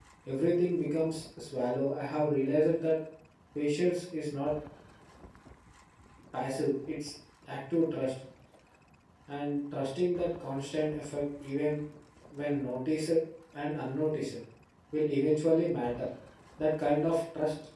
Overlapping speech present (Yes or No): No